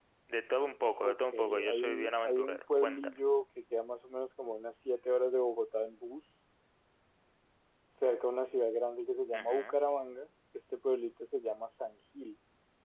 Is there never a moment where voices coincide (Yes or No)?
No